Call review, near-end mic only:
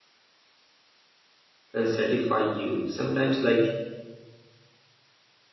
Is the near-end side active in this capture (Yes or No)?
Yes